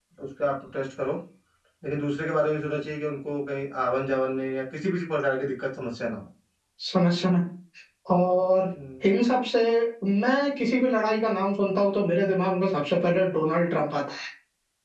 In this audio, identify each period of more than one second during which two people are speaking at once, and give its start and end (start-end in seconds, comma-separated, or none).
none